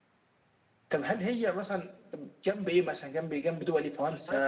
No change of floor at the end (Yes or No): No